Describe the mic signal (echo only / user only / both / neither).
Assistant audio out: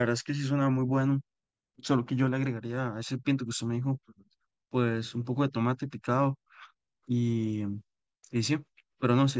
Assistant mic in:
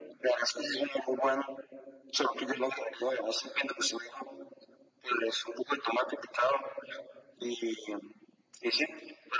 echo only